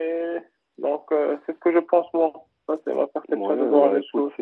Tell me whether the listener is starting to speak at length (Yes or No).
Yes